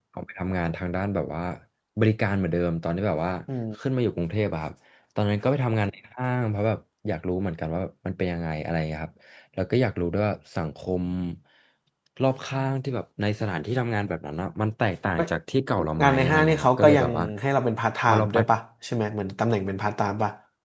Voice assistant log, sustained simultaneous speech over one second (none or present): present